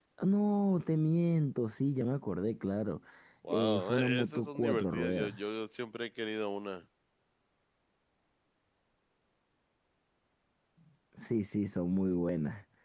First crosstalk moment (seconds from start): 4 s

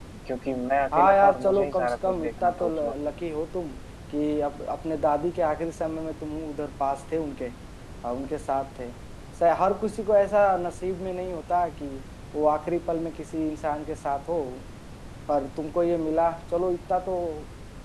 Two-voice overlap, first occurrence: 1 s

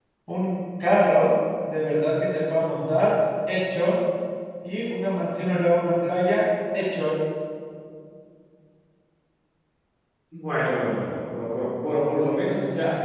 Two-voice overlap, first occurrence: none

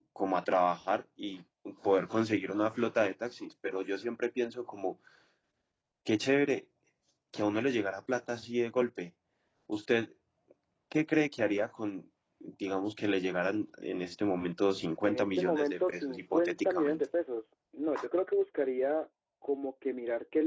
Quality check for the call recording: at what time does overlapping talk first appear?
15 s

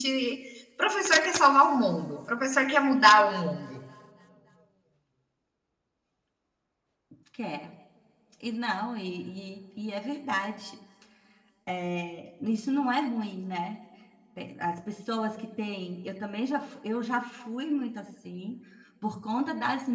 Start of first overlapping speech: none

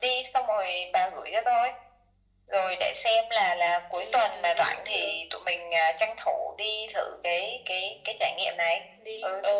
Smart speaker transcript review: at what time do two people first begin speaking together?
4 s

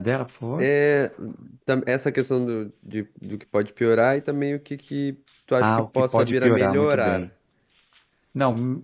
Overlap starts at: 6 s

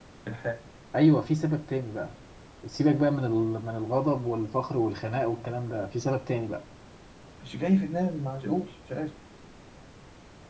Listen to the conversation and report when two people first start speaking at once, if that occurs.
none

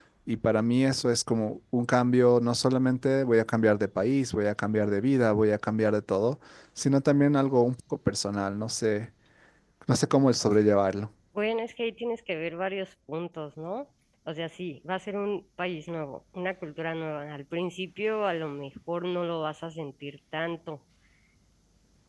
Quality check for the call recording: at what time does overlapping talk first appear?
none

